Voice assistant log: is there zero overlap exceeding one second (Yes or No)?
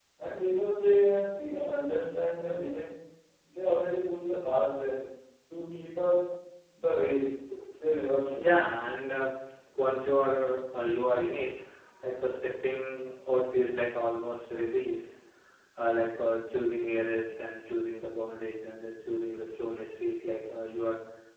Yes